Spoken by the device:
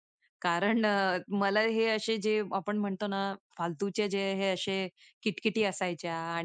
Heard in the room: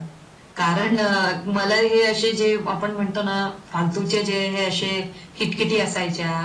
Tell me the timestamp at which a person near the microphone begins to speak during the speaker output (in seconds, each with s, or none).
none